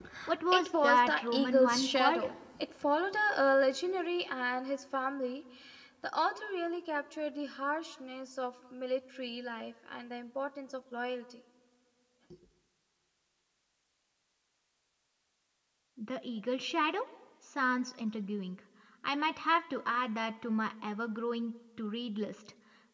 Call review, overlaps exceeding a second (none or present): present